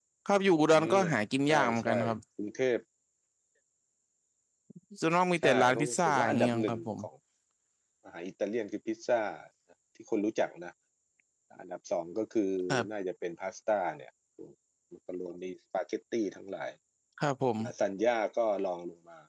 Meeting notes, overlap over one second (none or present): present